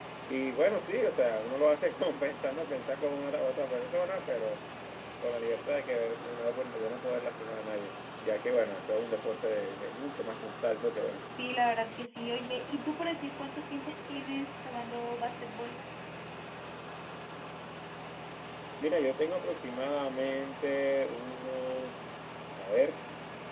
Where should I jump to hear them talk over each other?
none

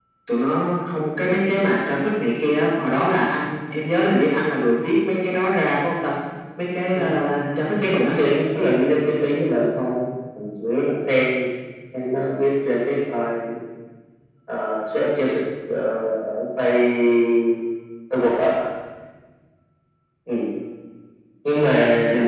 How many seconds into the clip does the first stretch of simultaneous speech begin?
7.0 s

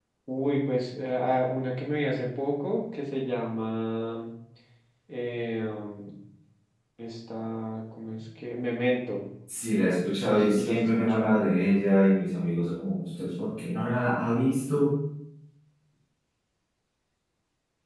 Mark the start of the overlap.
10.2 s

